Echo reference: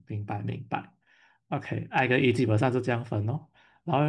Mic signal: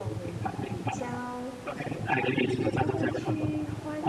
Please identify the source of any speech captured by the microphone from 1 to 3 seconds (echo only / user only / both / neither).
both